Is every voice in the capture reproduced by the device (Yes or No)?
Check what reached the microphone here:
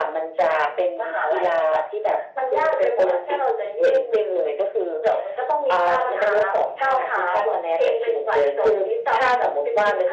Yes